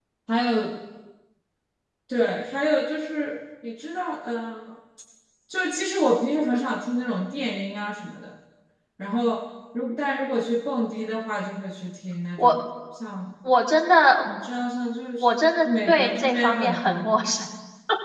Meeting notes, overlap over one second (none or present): present